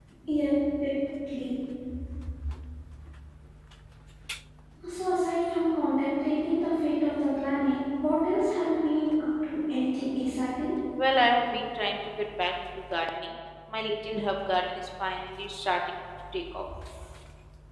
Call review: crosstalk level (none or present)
none